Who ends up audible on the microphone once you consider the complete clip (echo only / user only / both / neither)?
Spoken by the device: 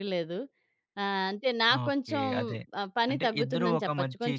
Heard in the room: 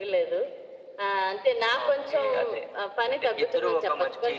echo only